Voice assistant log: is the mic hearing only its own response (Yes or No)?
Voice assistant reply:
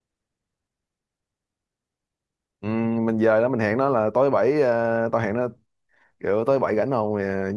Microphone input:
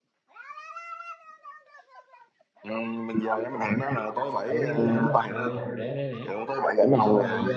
No